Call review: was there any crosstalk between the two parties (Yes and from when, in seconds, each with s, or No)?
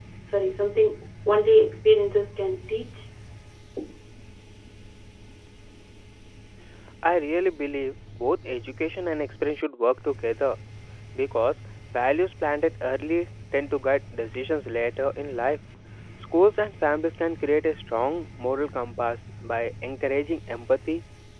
No